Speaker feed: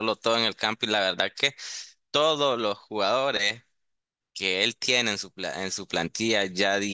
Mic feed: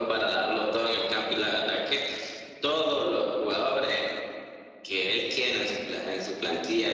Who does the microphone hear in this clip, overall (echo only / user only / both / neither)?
echo only